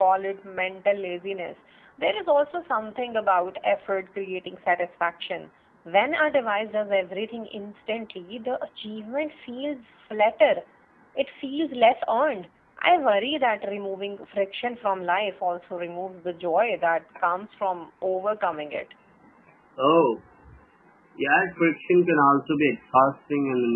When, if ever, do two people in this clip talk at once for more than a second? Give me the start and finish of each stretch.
none

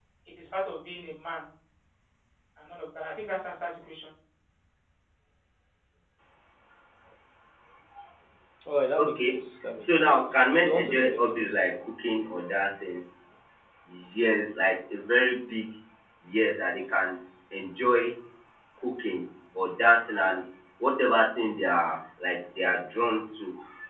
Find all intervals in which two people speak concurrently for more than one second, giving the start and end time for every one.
9.8-11.7

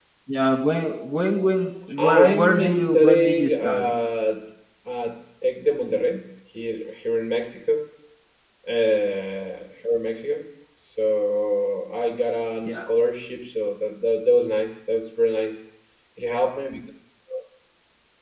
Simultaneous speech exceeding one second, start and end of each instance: 2.0-3.9

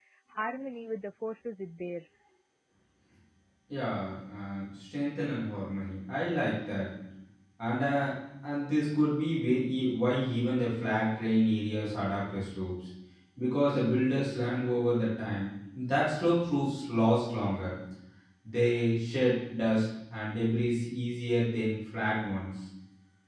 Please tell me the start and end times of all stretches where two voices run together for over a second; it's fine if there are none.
none

